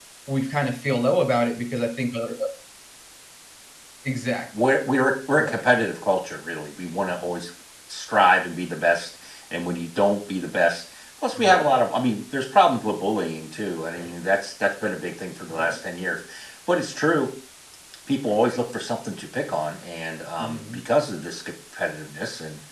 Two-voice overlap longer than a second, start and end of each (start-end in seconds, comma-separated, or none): none